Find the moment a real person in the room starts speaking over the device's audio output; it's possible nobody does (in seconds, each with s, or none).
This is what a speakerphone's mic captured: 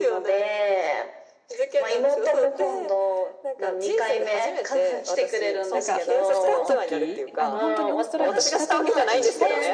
5.7 s